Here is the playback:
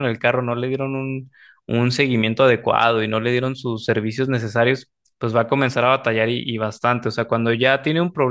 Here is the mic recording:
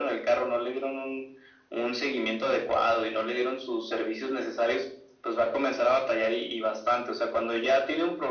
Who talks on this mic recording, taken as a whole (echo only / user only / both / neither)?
echo only